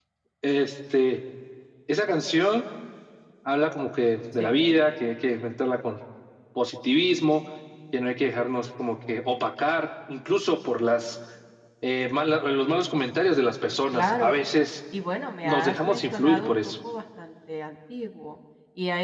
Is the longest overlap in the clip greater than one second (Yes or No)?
Yes